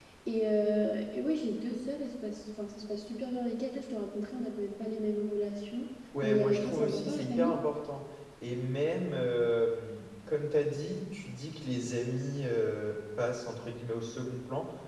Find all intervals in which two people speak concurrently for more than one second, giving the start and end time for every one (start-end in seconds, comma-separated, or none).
6.2-7.5